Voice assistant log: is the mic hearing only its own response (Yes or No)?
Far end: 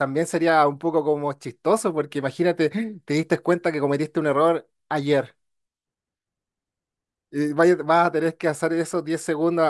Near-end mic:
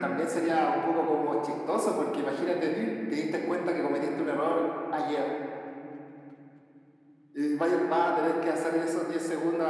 Yes